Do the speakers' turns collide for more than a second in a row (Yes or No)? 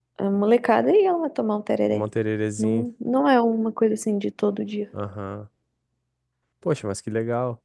No